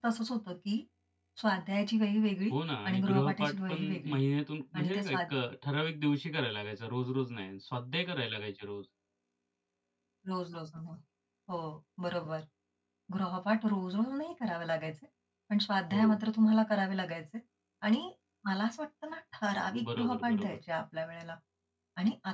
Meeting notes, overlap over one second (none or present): present